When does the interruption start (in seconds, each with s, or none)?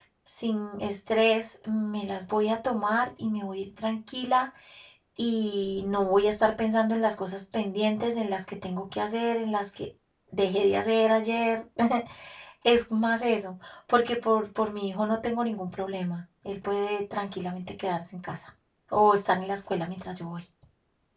none